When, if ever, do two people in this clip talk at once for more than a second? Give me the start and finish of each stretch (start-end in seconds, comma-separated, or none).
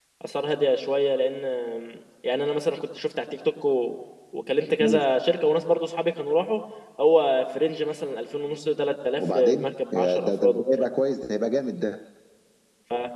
9.2-10.8